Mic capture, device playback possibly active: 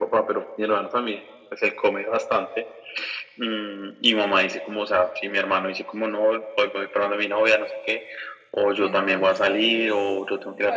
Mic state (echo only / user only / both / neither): both